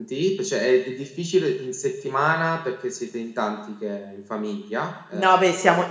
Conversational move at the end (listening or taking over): taking over